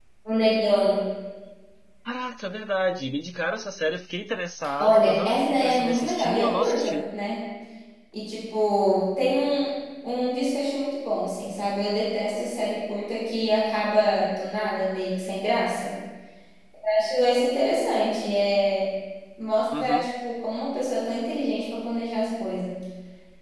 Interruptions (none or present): present